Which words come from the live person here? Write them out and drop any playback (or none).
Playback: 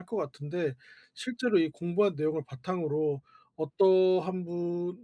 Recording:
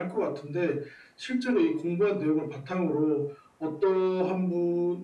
none